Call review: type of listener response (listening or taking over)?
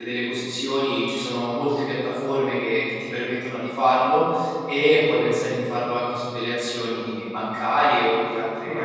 taking over